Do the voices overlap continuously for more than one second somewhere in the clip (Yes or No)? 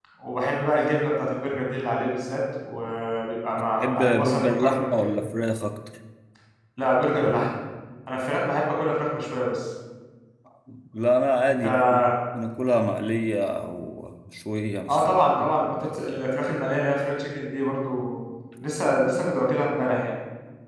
Yes